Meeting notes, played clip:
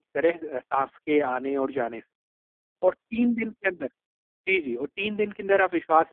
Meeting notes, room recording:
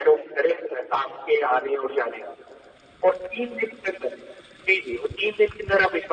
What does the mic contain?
echo only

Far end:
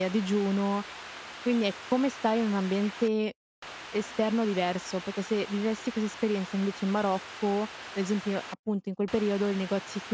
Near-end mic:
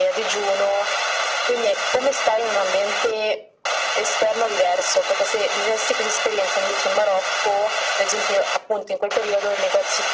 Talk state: echo only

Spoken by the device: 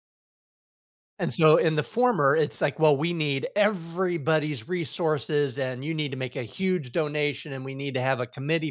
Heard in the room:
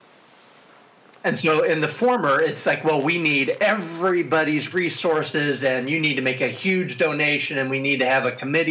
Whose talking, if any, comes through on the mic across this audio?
echo only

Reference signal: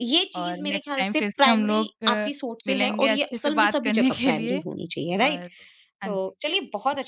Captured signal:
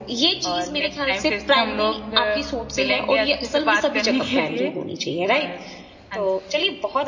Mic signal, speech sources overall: echo only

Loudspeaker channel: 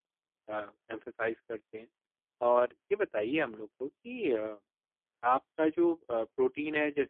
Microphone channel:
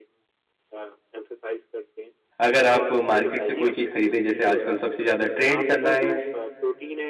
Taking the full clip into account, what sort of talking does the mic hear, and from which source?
both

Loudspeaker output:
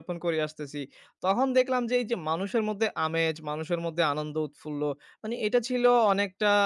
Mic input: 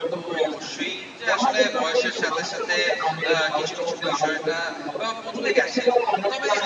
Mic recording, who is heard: both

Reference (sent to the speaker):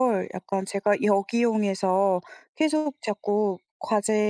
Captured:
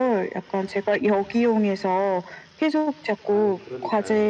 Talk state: both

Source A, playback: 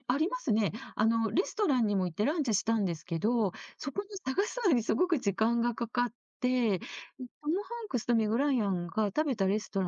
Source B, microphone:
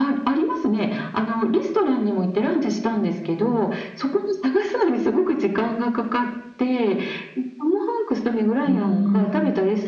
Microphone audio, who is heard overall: both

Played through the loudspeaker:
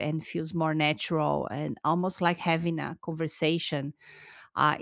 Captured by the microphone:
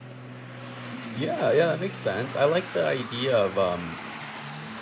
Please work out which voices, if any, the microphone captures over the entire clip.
user only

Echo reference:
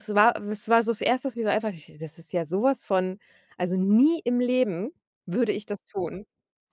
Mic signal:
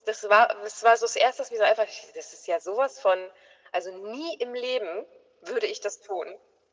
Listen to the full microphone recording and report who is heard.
echo only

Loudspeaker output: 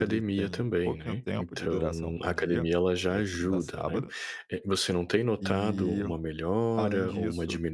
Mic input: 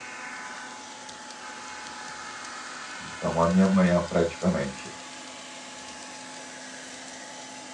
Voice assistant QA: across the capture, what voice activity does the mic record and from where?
user only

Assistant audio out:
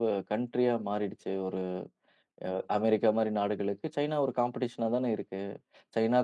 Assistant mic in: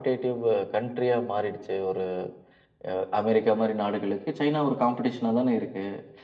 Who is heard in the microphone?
echo only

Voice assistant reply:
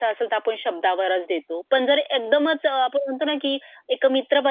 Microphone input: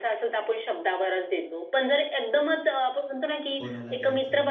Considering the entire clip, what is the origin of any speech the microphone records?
both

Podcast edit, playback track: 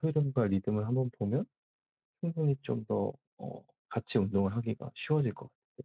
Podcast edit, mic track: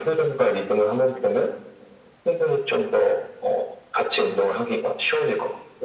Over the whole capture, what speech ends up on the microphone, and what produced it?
echo only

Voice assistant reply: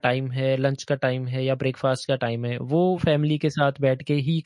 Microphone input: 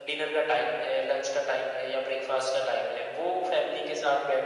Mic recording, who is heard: echo only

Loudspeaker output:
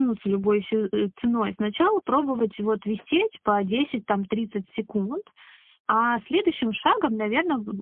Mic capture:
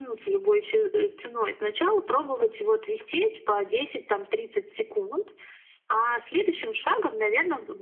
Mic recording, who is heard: echo only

